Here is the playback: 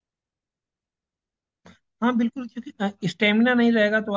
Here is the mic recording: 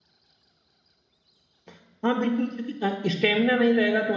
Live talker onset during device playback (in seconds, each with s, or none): none